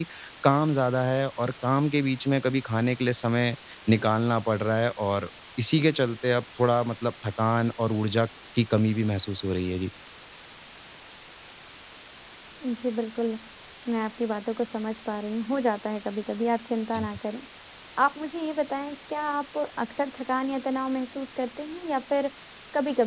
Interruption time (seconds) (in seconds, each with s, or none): none